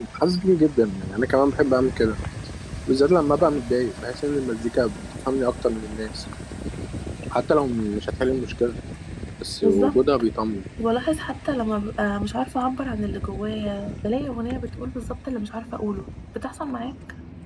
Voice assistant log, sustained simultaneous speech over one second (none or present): none